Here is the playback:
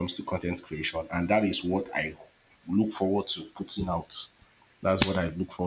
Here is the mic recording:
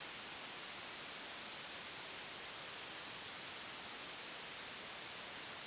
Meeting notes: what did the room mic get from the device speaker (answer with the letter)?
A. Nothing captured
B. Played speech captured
A